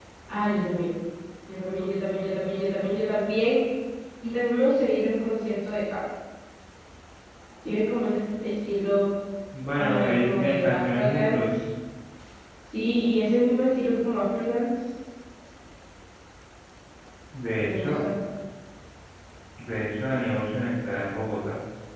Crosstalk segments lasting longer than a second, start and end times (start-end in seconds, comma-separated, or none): 9.8-11.5